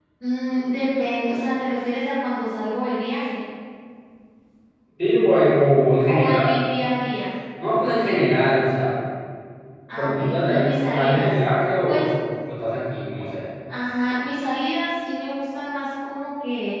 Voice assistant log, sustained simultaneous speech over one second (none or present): present